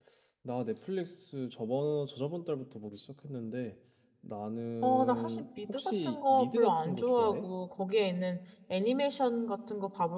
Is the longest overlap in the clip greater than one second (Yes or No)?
Yes